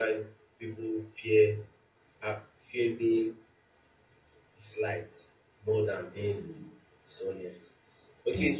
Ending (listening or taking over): listening